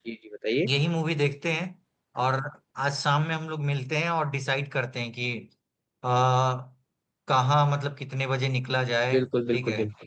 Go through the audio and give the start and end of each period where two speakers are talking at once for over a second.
none

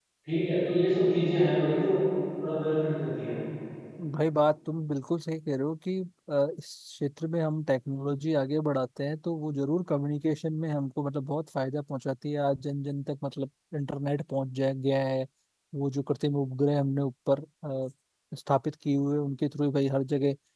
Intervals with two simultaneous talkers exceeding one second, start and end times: none

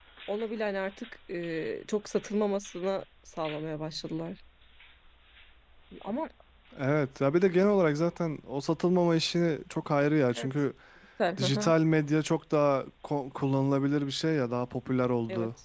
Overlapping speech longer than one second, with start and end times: none

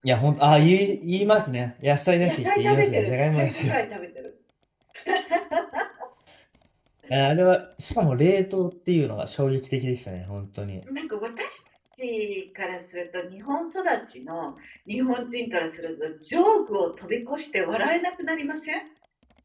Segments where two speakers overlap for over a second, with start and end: 2.2-3.7

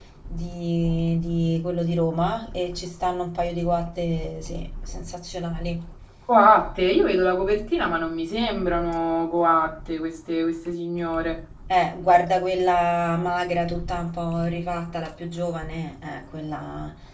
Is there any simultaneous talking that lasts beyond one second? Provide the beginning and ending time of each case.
none

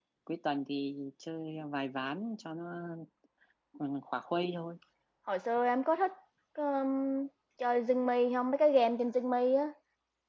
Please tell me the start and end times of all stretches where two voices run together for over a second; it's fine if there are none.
none

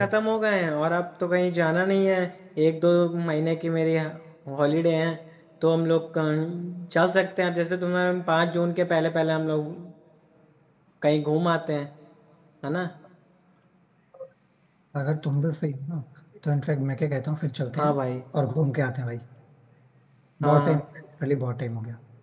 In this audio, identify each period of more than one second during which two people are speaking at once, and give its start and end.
none

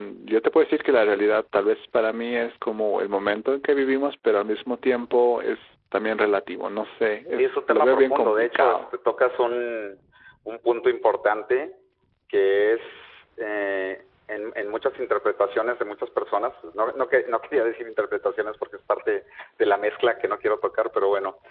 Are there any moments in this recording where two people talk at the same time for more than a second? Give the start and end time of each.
7.4-8.8

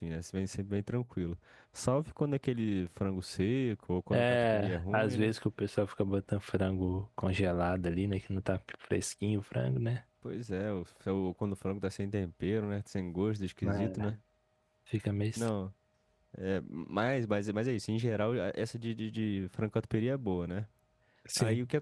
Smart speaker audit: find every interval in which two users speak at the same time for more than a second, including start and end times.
4.1-5.3

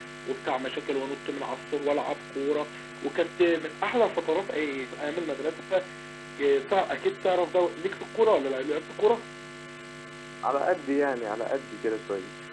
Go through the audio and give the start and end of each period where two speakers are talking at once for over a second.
none

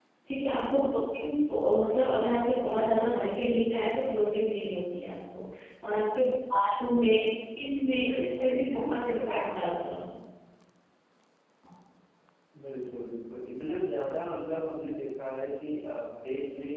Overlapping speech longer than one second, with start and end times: 8.1-9.3

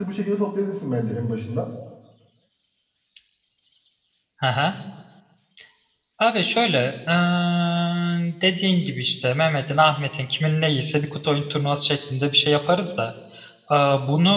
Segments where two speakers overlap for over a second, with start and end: none

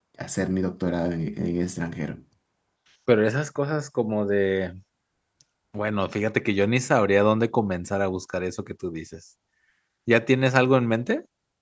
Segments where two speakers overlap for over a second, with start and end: none

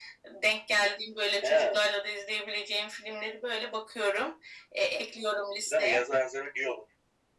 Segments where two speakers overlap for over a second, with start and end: none

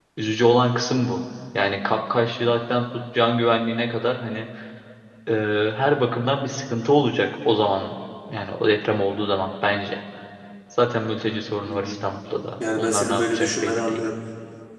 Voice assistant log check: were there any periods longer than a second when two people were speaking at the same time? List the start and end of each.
12.8-14.1

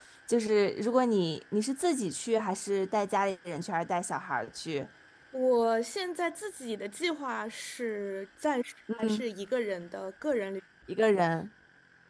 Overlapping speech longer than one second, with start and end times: none

